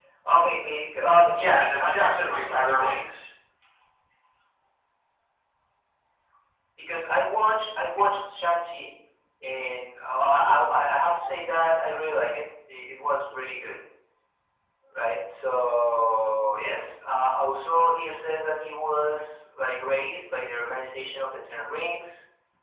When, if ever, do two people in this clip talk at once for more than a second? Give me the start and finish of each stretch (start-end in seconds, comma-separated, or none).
1.3-3.2